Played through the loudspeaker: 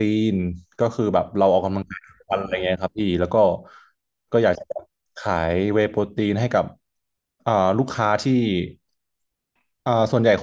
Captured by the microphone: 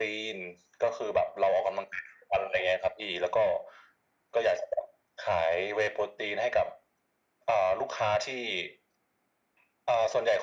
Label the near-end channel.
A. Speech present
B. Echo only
B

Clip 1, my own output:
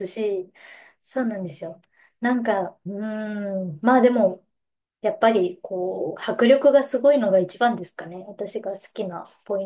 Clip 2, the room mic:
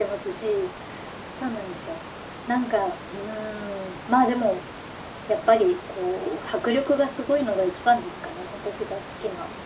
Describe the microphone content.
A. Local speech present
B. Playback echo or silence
B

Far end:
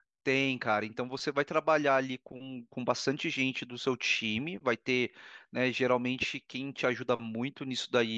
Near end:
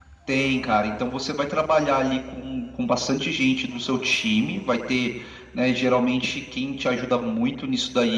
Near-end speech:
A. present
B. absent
B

